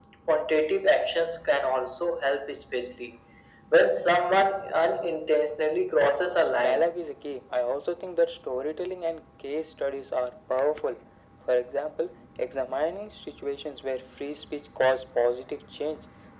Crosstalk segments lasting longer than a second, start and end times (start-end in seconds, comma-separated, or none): none